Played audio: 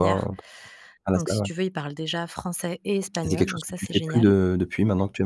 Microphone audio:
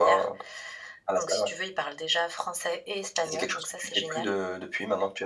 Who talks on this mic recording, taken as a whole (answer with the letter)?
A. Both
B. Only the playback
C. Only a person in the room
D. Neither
B